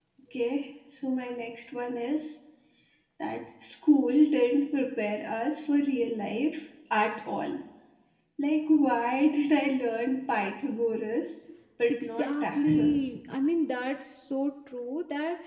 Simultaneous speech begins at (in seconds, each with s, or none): 11.9 s